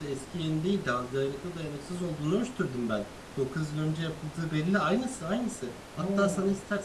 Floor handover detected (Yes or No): No